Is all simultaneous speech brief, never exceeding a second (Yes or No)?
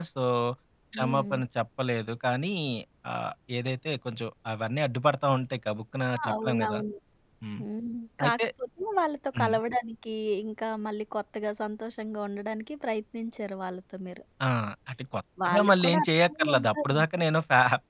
No